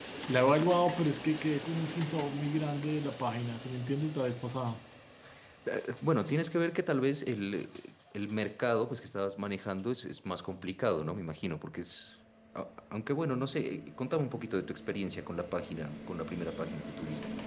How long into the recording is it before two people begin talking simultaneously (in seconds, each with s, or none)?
none